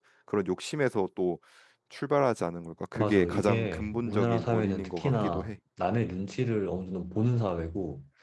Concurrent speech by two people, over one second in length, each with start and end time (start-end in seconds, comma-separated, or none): 3.0-5.5